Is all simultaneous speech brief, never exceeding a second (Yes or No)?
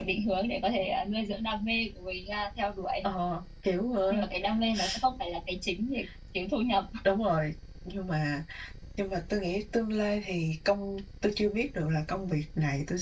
Yes